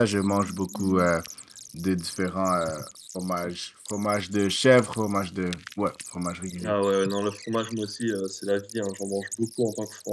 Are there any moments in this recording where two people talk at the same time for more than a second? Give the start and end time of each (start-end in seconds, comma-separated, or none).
none